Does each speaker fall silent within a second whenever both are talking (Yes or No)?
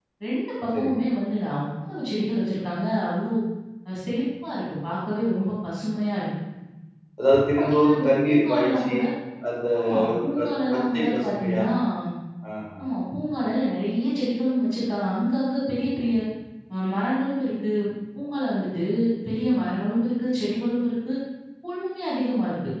No